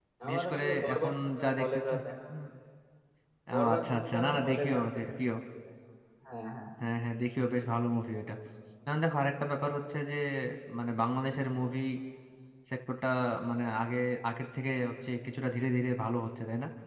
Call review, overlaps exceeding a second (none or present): present